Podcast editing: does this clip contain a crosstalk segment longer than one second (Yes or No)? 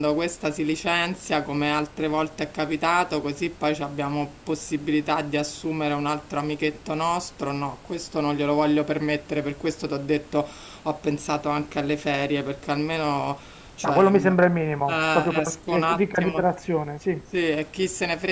Yes